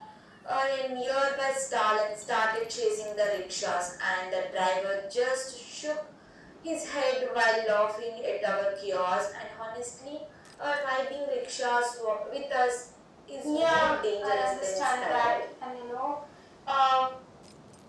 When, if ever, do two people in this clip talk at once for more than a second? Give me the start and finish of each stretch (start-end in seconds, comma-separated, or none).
13.4-15.4